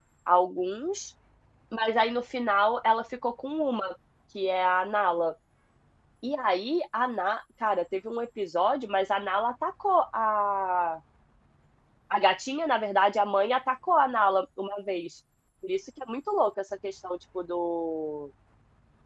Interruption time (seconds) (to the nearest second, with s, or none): none